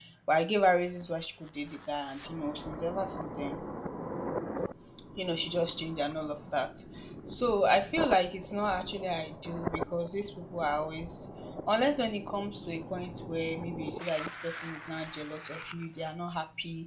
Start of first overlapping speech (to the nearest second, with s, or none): none